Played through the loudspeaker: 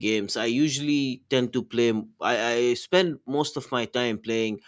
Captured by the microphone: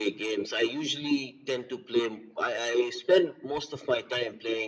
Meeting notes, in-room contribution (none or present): none